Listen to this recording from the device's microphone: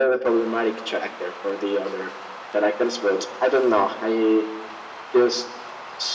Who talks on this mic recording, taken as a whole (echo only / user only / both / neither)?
echo only